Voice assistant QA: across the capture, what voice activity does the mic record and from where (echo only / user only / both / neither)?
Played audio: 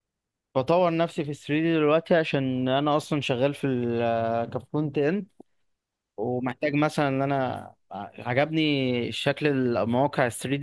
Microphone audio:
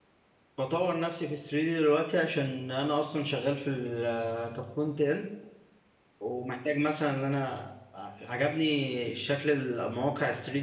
echo only